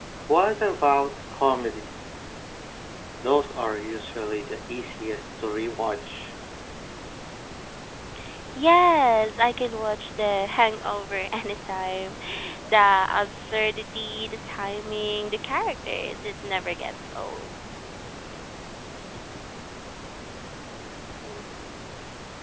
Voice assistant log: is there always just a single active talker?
Yes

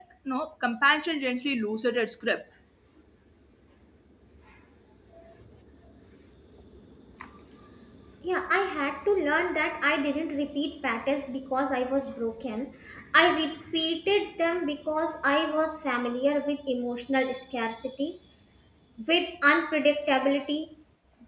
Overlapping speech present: No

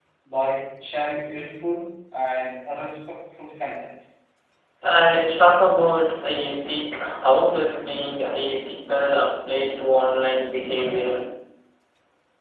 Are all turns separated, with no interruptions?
Yes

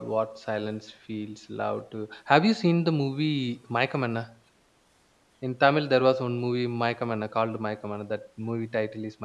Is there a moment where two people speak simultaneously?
No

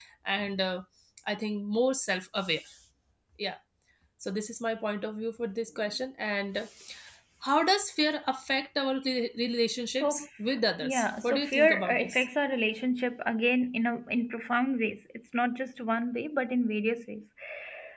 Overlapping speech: Yes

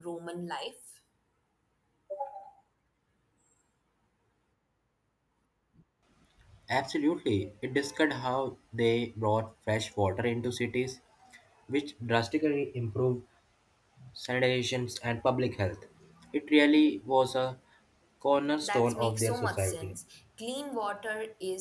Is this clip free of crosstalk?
No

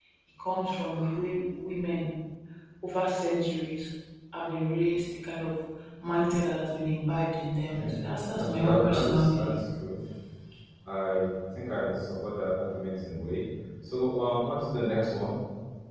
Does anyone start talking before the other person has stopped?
Yes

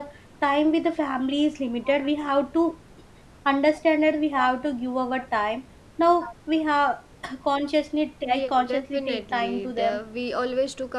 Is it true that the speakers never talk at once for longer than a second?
No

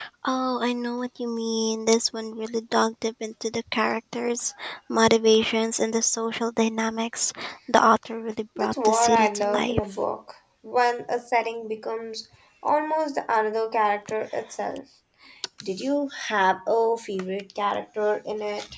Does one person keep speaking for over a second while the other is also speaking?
Yes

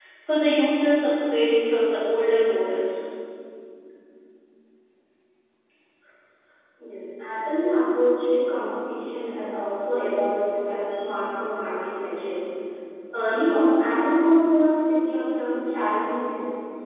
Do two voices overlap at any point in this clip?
No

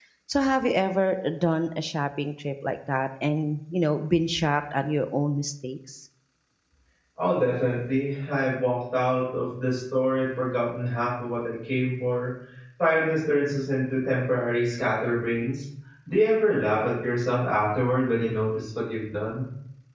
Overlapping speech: No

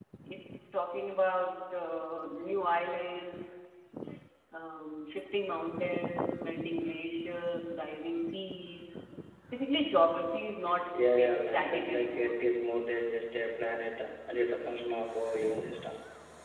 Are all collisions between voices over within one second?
No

